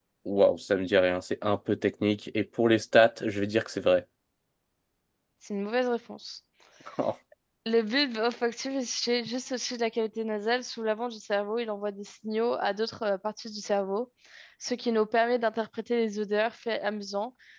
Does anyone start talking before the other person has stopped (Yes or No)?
No